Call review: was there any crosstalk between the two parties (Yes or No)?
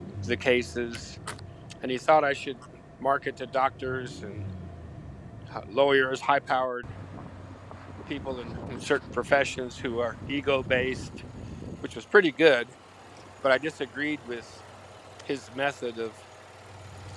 No